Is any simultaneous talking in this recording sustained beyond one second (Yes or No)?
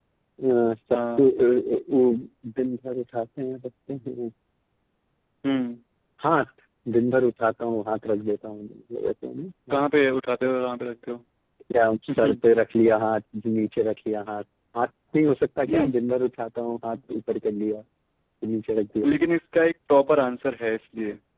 No